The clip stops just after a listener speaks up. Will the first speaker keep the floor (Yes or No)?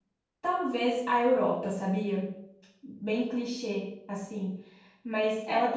No